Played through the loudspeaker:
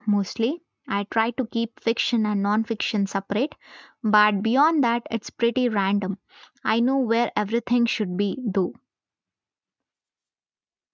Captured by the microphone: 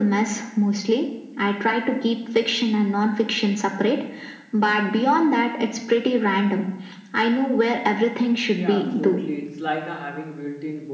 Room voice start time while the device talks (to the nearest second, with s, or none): 9 s